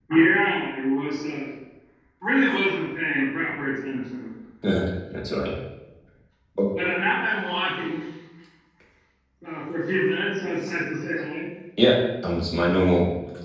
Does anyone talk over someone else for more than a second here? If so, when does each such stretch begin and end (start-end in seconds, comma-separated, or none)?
none